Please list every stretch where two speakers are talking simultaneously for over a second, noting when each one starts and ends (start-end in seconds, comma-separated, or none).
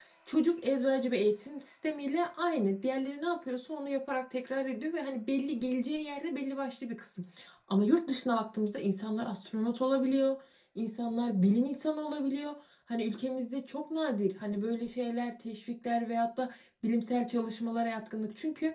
none